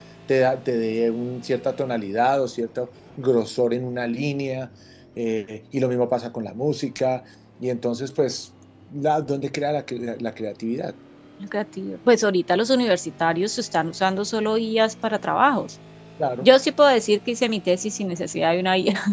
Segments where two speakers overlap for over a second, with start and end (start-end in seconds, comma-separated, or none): none